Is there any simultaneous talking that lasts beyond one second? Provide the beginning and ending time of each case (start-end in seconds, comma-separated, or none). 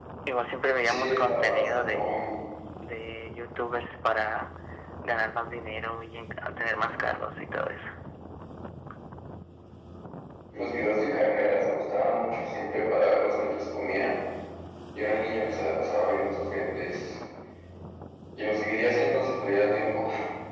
0.8-2.1